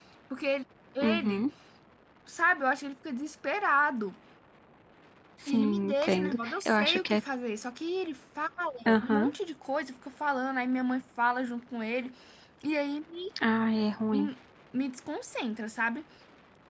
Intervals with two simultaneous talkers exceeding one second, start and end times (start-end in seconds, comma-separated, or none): 5.5-7.2